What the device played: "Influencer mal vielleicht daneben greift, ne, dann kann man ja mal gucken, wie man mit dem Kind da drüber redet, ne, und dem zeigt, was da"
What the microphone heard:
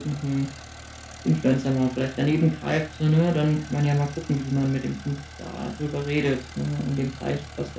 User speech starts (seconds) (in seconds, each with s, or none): none